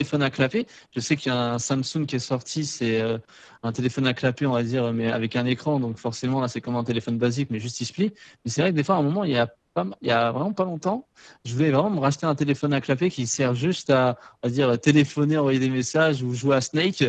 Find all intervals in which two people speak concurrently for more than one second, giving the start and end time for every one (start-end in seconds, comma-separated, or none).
none